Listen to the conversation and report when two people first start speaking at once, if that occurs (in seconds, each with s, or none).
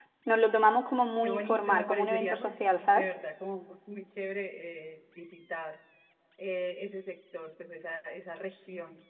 1.2 s